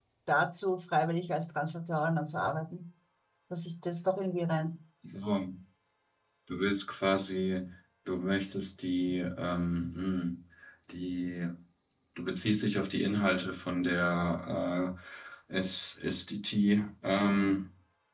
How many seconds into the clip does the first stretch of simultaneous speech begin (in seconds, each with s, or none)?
none